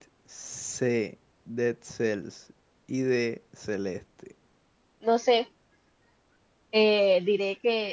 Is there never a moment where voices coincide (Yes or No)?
Yes